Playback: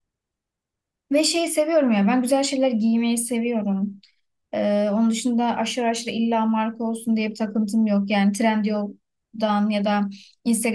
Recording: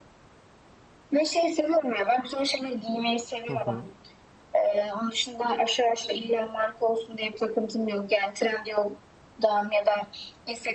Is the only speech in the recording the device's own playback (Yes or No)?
No